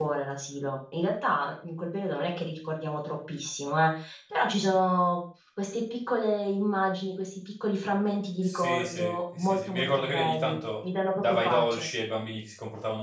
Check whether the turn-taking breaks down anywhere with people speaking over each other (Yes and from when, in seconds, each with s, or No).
Yes, from 8.4 s